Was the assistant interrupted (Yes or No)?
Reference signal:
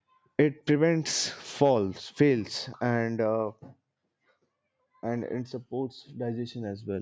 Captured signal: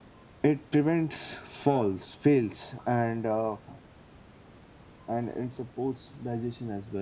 No